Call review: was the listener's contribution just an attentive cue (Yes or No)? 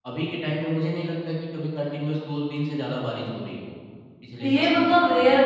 No